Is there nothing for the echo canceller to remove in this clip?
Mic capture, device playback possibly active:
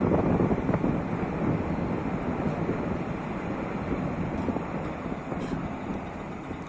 Yes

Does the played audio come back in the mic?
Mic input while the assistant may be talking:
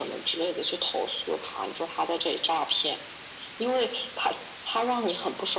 Yes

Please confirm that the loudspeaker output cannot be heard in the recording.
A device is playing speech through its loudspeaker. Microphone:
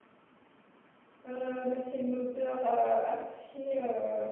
Yes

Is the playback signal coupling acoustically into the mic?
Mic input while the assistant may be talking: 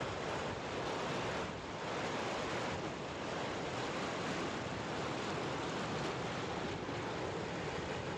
No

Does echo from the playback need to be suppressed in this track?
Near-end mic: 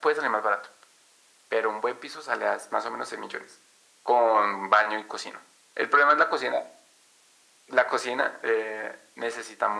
Yes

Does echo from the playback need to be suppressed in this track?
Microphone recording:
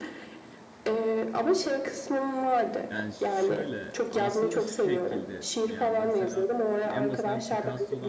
Yes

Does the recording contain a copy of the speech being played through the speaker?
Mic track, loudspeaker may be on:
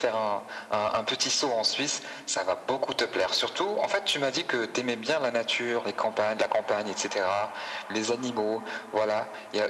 Yes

